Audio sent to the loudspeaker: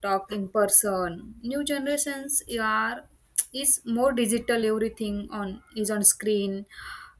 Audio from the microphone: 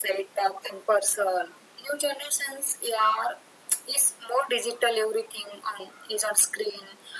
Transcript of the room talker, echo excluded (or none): none